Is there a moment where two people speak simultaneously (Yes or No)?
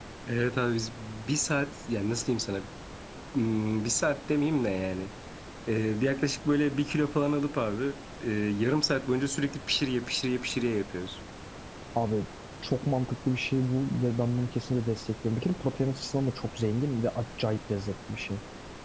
No